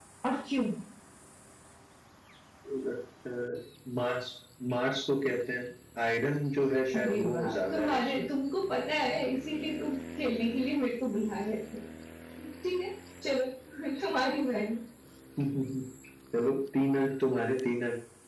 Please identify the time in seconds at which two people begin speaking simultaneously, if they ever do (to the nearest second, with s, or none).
7 s